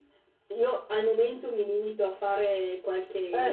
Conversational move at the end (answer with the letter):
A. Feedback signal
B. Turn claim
A